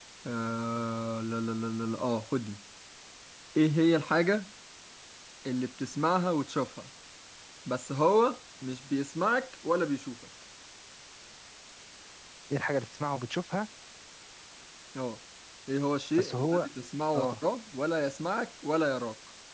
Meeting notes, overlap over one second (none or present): none